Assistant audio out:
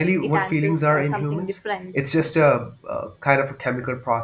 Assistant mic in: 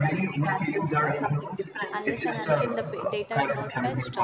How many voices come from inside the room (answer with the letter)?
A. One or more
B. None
A